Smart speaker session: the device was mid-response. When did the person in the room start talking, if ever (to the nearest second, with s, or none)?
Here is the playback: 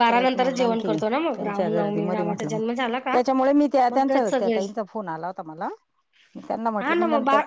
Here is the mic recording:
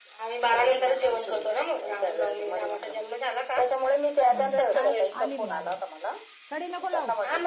4 s